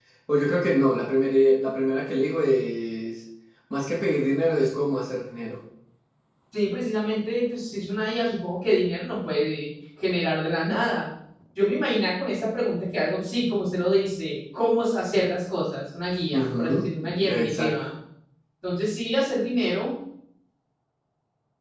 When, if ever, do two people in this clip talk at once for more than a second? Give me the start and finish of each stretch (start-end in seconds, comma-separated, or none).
16.3-17.7